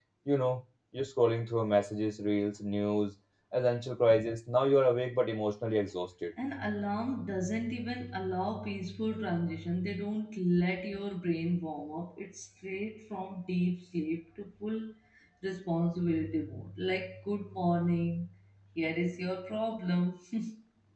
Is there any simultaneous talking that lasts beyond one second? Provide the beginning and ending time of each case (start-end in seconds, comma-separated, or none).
none